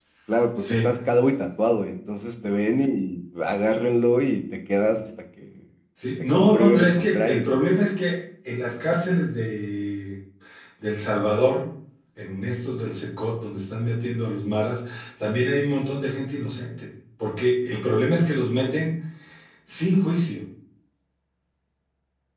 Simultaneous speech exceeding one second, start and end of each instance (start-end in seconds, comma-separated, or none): 6.2-7.7